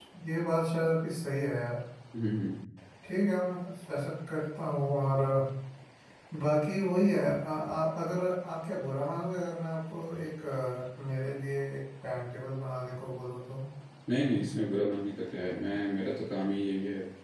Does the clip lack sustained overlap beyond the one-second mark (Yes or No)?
Yes